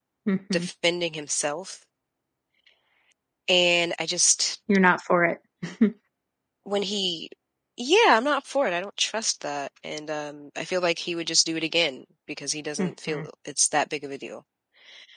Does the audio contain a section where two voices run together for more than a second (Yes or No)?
No